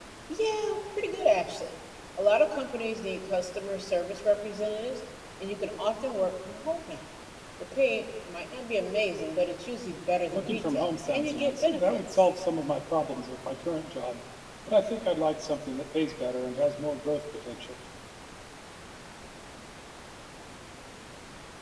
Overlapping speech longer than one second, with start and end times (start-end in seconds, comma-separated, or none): 10.3-12.3